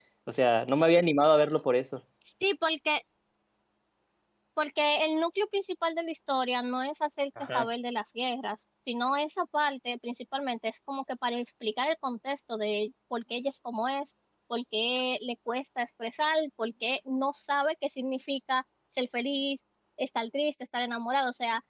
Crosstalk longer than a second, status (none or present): none